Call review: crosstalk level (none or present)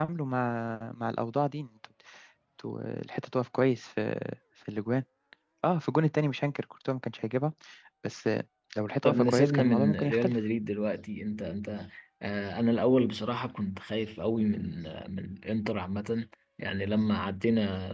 present